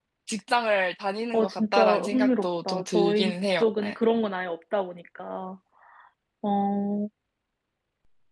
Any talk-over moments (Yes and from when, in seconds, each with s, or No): Yes, from 1.3 s